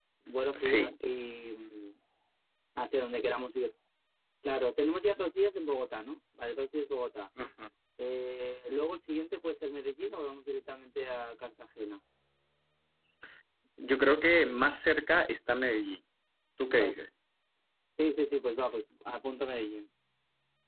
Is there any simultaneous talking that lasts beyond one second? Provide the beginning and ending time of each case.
none

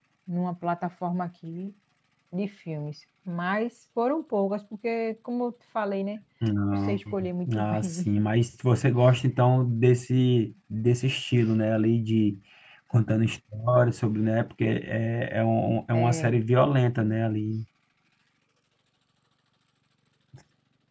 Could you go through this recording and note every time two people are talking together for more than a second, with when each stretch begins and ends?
6.7-8.1

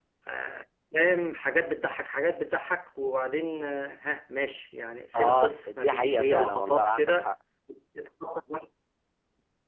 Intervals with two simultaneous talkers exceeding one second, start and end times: 5.2-7.3

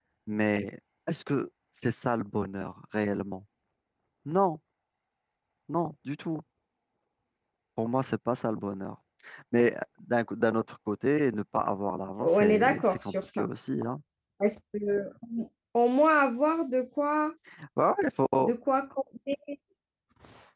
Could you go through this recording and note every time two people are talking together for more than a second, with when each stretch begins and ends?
12.2-13.5

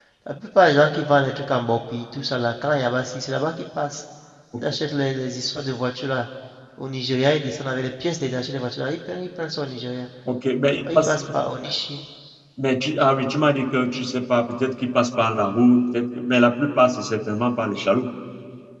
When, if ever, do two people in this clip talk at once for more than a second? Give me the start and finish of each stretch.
none

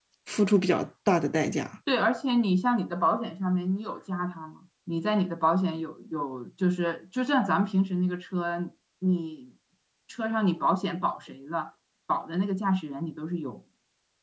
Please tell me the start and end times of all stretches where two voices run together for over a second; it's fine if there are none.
none

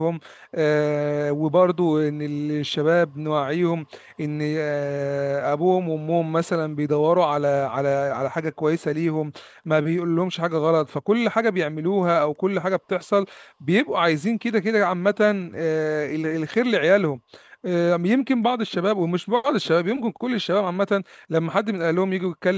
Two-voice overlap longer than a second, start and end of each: none

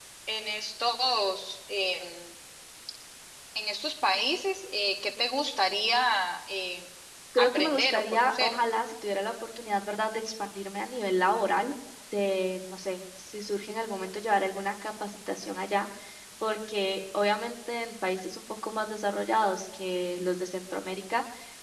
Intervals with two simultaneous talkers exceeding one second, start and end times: 7.4-8.6

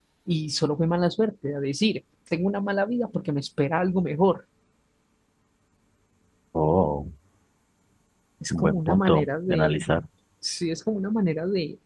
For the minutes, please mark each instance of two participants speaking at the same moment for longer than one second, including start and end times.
8.5-9.8

